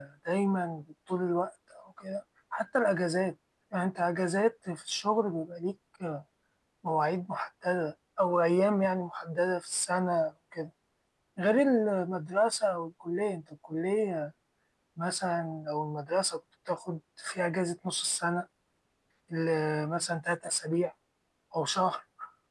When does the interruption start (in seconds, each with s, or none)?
none